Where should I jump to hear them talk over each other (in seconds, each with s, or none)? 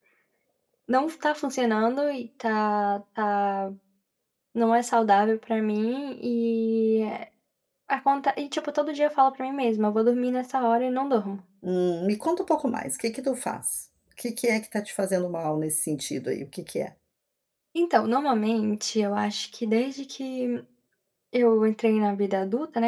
none